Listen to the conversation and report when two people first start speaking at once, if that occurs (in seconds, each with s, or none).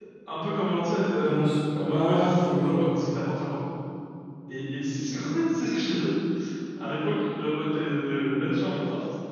1.2 s